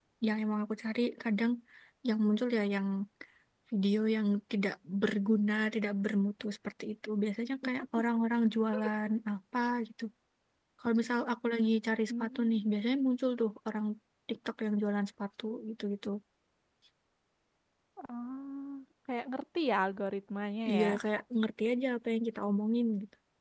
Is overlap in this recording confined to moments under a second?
Yes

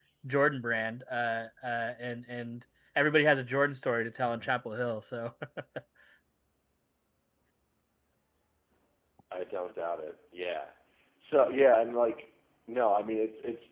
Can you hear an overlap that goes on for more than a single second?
No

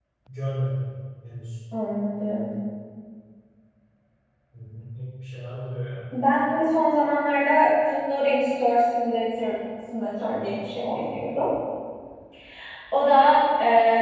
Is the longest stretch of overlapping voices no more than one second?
Yes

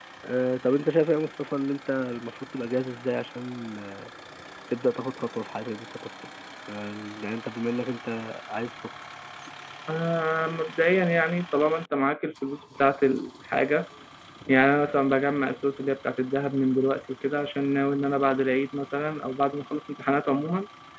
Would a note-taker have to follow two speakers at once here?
No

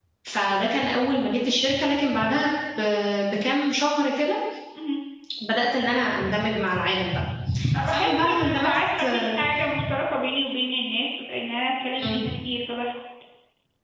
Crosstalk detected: Yes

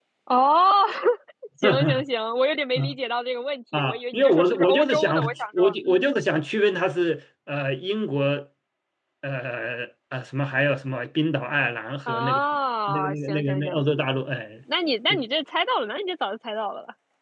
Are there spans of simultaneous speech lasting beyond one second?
Yes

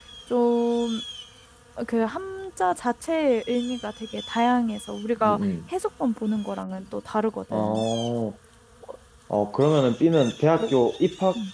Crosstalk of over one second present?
No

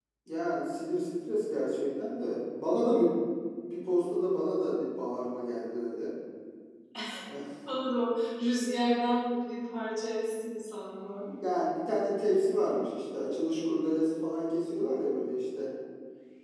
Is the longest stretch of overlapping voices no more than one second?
Yes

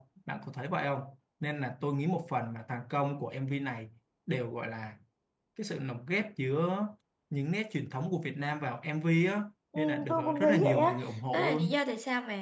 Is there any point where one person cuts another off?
Yes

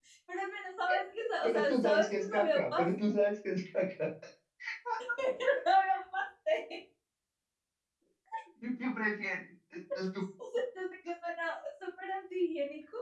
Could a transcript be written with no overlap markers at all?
No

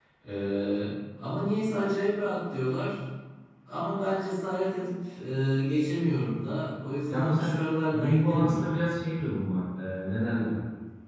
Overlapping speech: Yes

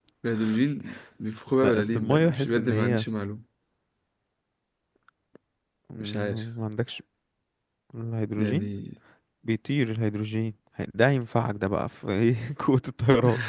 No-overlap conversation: No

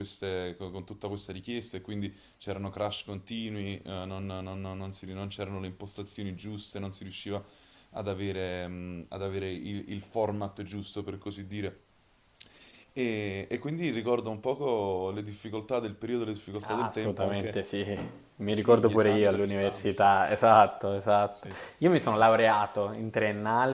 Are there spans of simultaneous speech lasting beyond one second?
Yes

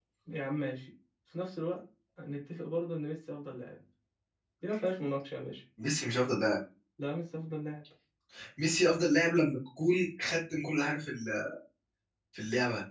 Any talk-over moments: No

